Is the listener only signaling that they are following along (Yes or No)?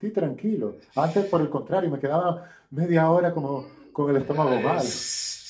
No